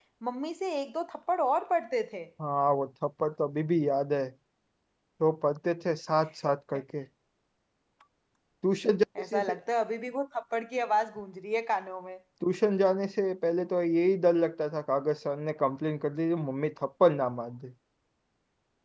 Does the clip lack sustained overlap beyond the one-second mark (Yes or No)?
Yes